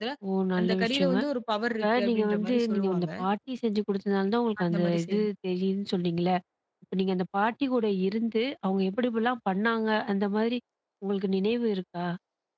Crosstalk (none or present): present